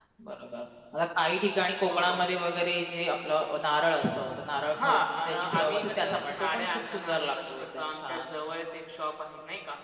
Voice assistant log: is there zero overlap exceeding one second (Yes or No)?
No